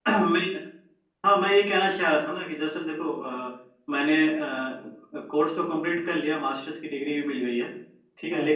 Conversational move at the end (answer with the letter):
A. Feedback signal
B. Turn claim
A